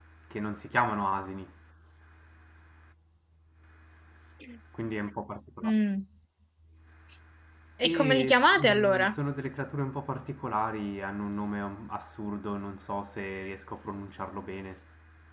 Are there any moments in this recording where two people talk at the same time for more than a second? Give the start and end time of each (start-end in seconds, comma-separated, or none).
7.8-9.2